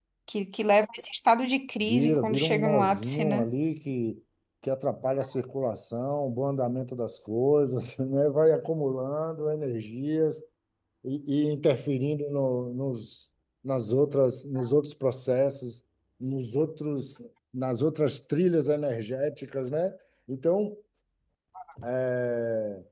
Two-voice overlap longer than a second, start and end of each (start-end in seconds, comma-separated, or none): 1.8-3.5